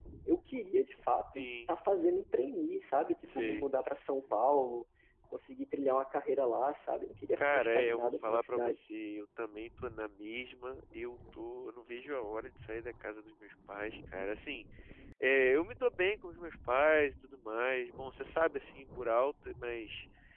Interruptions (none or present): present